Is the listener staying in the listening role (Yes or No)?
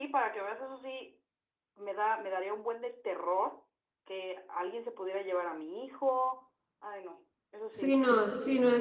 No